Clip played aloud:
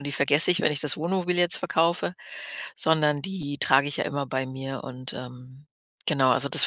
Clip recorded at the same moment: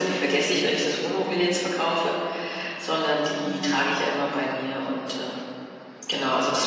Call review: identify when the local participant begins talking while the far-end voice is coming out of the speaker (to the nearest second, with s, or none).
none